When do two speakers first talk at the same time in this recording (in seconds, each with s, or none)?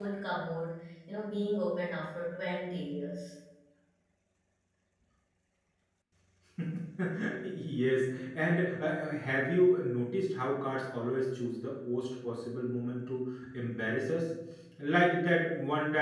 none